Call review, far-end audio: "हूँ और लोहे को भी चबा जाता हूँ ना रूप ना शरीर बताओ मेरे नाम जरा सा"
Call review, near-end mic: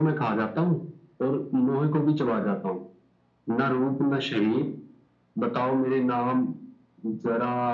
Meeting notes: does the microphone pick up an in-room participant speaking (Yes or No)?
No